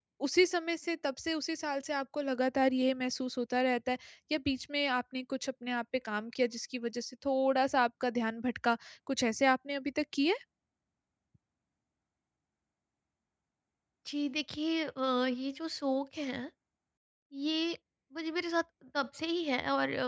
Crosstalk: none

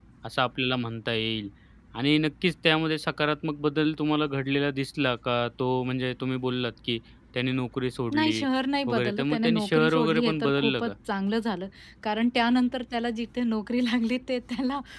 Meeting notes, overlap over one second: present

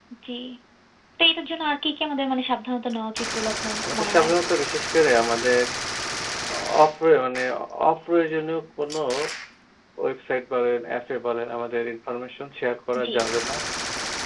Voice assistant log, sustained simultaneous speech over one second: none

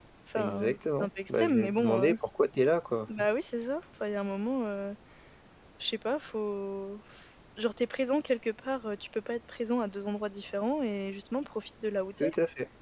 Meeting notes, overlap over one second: present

